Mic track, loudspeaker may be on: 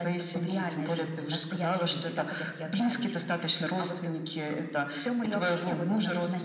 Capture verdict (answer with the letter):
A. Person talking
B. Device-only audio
B